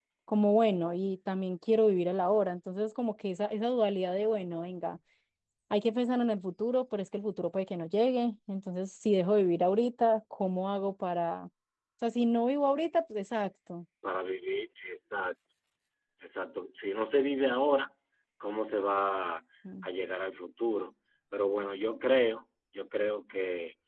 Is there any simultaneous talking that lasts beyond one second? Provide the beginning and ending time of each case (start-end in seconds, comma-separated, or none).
none